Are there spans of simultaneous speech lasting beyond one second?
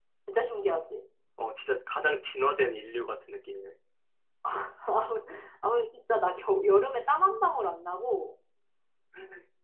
No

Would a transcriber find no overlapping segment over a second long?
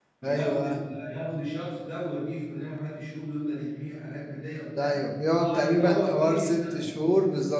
No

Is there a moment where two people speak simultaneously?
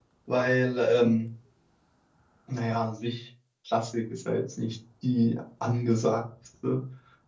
No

